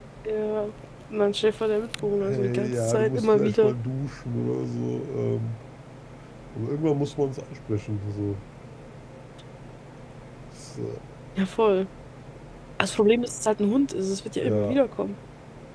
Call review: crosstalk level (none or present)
present